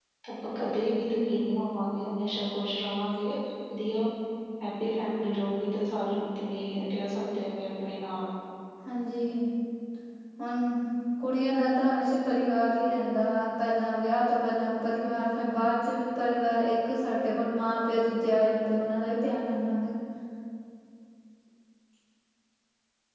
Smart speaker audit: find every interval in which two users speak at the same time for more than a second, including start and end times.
none

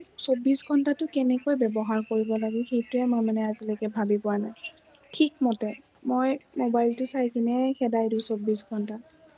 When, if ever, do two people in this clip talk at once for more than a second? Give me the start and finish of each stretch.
none

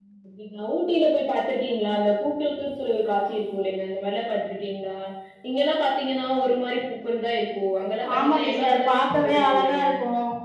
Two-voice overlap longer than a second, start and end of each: 8.2-9.8

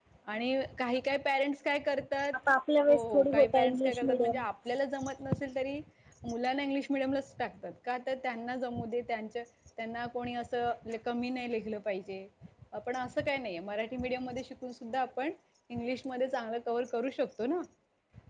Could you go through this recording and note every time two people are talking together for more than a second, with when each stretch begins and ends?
2.9-4.4

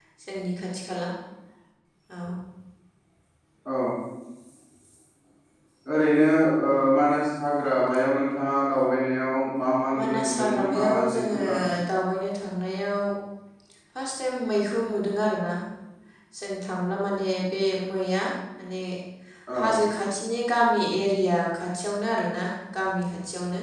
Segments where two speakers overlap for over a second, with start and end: 10.0-11.4

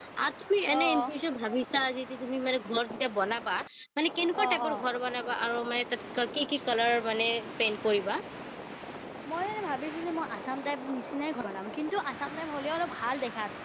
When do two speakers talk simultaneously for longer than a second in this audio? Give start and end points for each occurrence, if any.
none

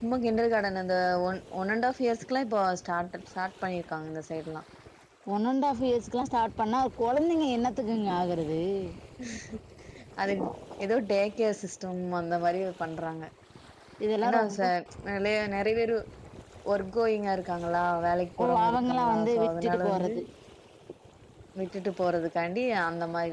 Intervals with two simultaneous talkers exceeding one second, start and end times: 18.4-20.1

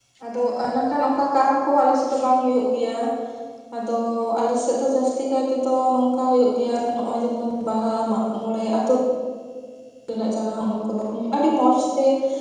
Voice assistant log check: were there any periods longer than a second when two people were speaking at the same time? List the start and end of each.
none

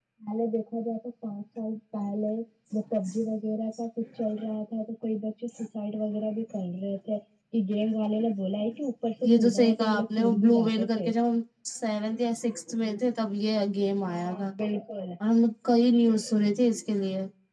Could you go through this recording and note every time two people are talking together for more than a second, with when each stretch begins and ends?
9.4-11.1

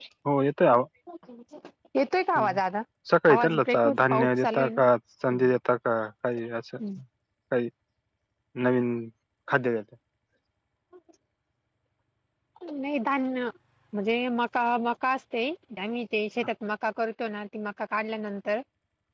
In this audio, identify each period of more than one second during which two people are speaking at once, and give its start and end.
3.3-4.8

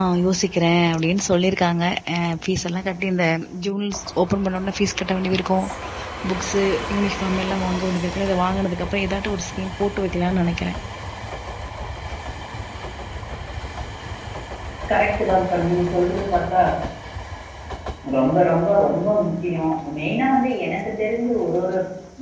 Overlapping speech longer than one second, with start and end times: none

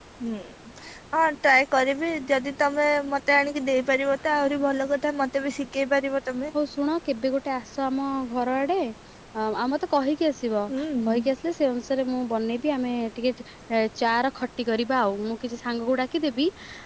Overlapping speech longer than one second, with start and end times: none

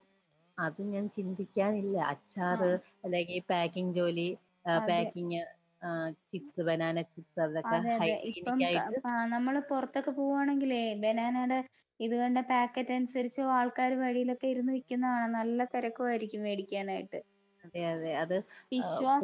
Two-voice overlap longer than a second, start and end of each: 7.7-8.9

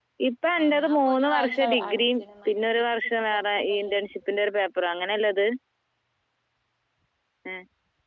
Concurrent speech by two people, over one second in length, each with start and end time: 0.6-2.6

